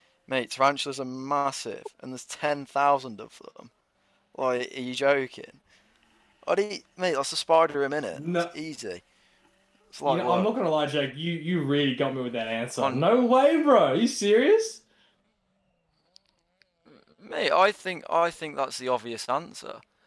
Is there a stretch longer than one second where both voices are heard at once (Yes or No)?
No